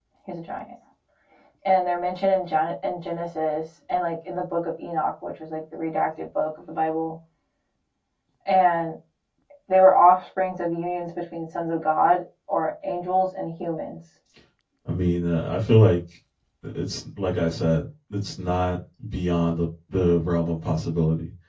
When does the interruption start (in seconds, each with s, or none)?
none